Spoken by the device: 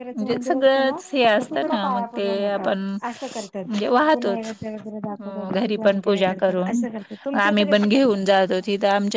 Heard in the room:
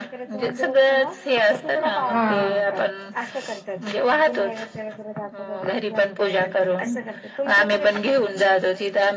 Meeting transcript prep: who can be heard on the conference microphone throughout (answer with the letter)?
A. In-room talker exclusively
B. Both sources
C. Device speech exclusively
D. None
B